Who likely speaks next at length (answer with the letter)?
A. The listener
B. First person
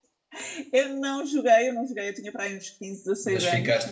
A